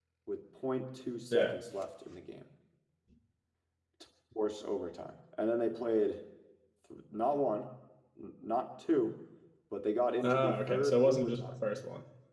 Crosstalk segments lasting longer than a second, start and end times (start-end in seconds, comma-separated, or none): 10.2-11.6